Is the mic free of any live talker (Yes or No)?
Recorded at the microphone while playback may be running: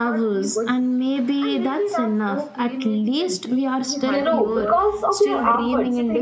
No